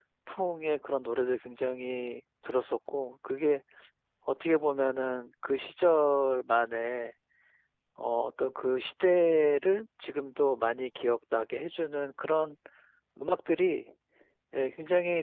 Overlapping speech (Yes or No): No